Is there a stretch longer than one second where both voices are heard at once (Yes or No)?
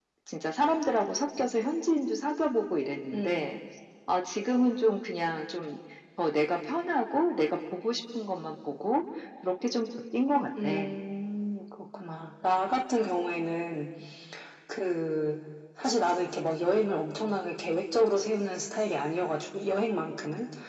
No